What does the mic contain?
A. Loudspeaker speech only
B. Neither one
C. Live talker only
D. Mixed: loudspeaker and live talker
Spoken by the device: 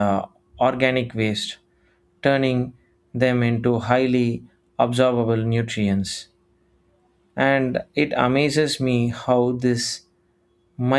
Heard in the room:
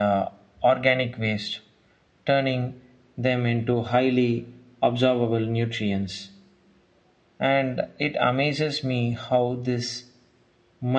A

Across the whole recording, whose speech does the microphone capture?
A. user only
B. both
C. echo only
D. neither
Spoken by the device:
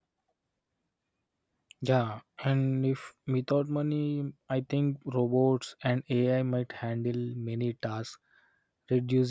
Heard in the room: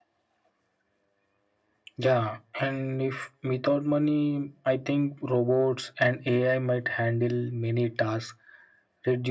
C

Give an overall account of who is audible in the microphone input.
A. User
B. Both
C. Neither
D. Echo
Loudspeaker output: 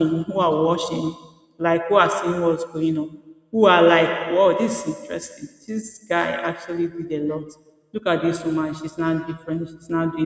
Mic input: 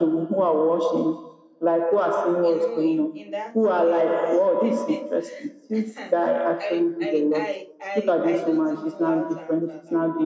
B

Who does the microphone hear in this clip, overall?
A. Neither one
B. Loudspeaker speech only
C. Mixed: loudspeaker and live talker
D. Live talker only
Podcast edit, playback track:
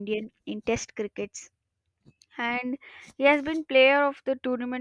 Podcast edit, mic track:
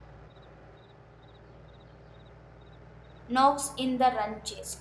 D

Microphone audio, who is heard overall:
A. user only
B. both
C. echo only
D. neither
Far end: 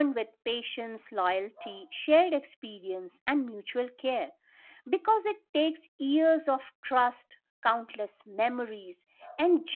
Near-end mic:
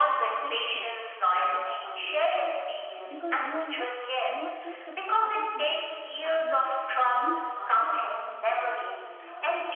B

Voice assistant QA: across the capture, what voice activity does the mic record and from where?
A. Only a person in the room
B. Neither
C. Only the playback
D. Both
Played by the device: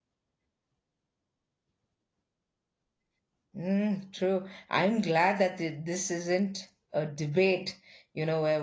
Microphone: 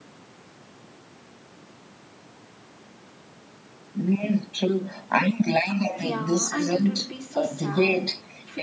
D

